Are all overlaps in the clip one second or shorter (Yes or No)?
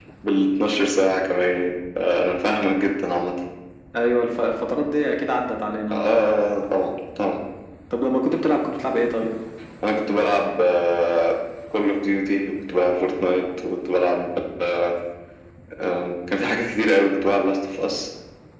Yes